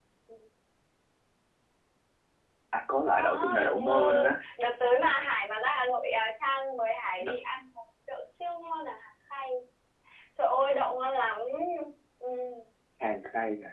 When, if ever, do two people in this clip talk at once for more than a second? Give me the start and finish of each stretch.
3.0-4.4

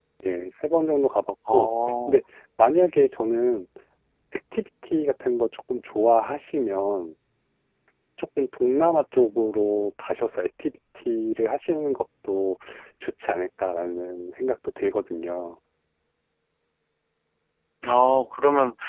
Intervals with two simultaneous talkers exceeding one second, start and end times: none

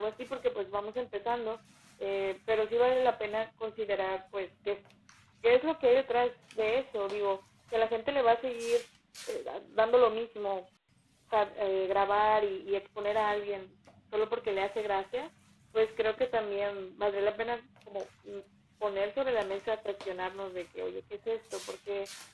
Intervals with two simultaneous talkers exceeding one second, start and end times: none

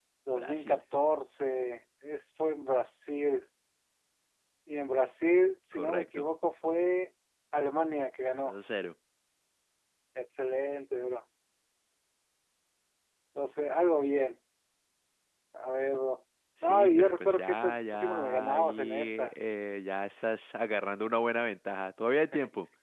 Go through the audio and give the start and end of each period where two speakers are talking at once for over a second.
16.6-19.3

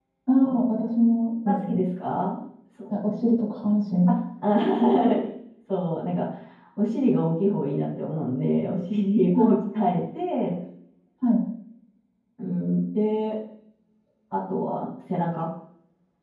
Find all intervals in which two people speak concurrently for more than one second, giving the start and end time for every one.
none

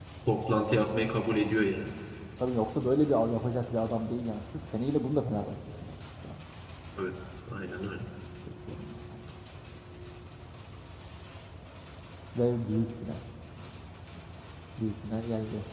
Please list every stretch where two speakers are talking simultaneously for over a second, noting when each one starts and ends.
none

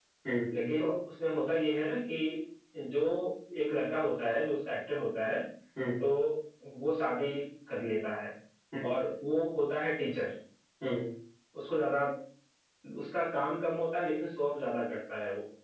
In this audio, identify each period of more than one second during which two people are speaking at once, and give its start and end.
none

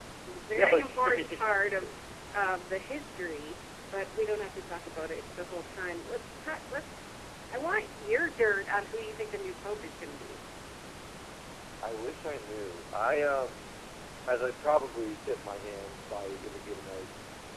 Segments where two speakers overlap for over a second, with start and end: 0.5-1.9

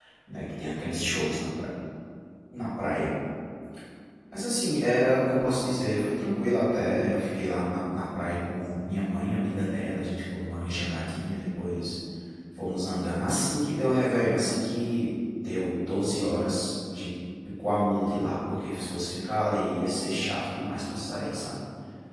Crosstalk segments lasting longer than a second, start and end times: none

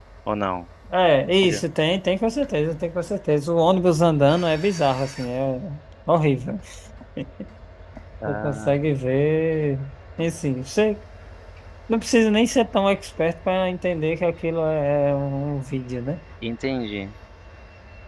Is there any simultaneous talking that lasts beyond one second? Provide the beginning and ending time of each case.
none

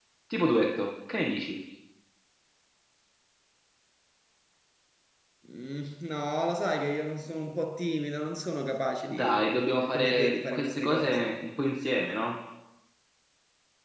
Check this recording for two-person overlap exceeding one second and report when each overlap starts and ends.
9.9-11.3

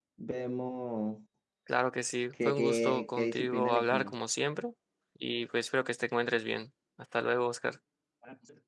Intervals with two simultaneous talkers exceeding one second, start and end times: 2.5-4.2

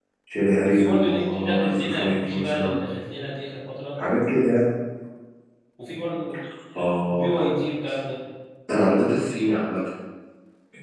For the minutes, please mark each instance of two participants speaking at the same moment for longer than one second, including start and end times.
0.6-2.8

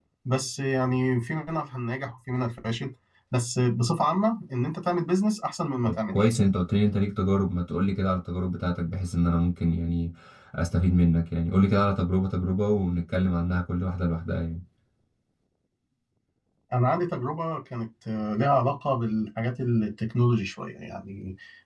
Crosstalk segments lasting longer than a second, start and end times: none

